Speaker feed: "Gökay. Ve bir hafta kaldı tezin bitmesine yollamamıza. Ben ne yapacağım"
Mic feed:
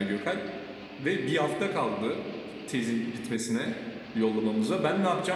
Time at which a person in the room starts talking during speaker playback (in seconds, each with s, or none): none